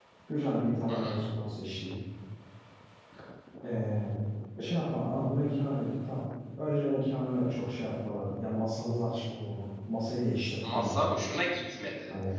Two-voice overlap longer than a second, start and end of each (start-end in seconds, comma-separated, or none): none